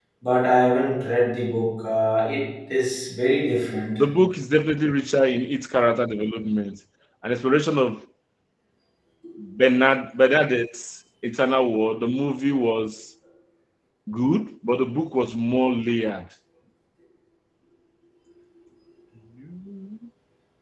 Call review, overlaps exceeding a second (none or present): none